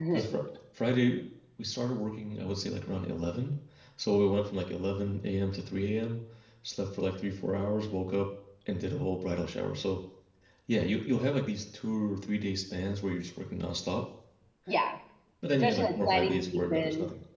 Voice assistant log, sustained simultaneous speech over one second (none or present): present